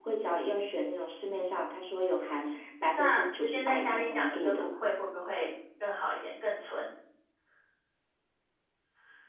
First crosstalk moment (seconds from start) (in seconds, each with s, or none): 2.9 s